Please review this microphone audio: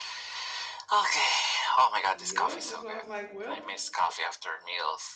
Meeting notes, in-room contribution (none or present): present